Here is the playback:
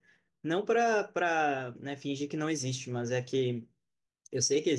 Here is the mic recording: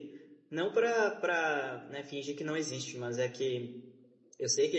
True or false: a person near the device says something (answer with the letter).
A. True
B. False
B